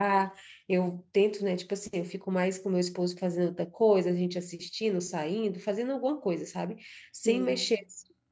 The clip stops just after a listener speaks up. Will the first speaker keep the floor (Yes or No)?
Yes